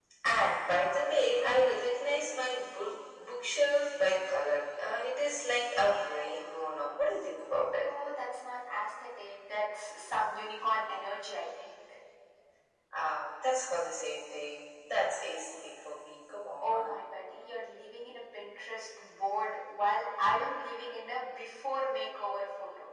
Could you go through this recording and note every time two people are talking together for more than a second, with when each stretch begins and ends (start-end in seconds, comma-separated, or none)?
none